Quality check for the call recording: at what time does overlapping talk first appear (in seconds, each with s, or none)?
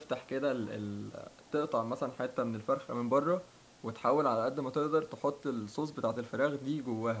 none